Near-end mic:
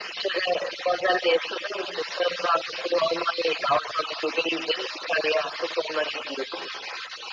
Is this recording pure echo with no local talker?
Yes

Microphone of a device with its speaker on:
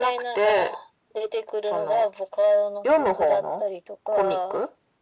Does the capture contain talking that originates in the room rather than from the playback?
No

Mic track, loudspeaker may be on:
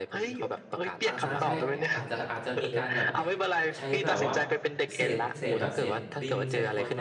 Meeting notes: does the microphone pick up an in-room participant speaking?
Yes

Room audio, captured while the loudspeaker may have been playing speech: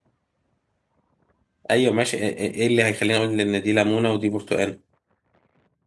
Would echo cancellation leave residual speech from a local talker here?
Yes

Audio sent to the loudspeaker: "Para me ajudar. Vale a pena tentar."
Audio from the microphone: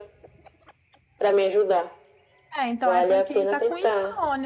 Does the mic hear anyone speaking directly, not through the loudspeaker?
Yes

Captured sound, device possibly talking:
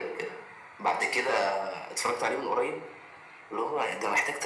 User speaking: No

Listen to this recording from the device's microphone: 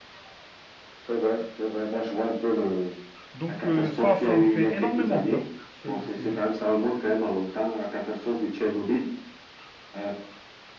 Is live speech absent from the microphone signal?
No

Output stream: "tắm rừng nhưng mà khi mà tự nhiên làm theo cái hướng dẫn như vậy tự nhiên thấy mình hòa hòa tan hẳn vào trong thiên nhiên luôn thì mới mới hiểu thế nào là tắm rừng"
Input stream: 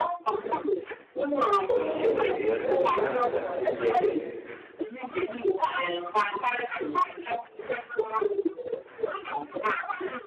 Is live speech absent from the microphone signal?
No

